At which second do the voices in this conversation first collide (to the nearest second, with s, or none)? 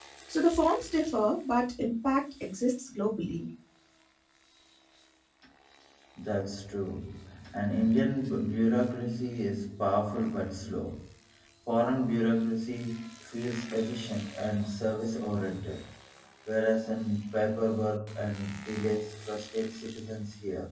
none